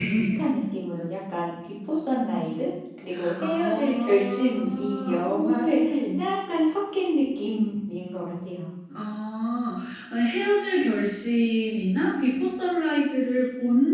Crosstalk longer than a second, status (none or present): present